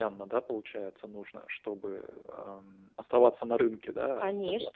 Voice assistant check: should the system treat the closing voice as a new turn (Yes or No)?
Yes